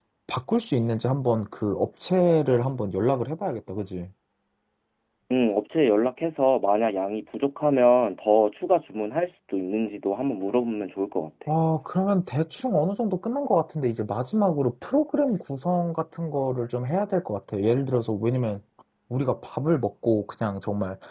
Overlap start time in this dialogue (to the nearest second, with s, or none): none